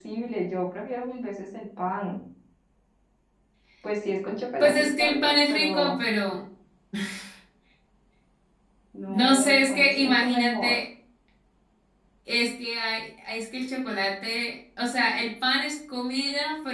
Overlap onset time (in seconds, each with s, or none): 4.6 s